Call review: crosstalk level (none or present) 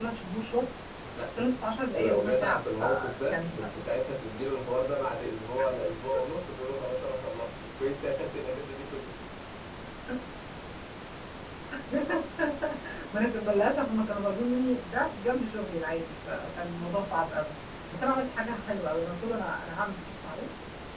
present